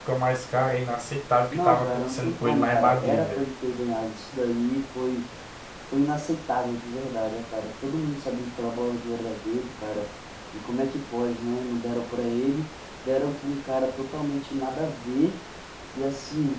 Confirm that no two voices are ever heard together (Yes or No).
No